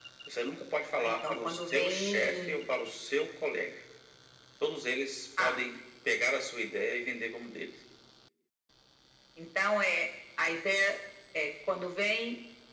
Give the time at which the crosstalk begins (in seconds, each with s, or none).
1.0 s